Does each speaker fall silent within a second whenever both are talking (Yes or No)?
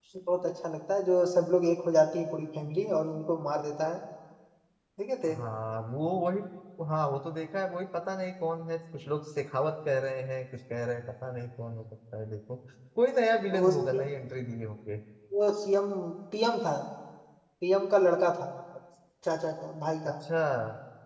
Yes